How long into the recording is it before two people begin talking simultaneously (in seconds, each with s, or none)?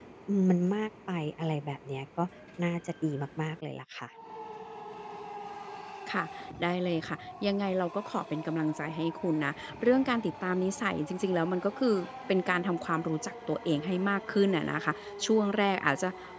none